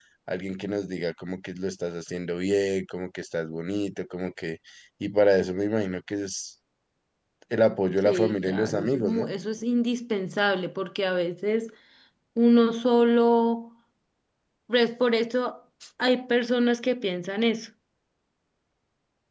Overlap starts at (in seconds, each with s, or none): 8.1 s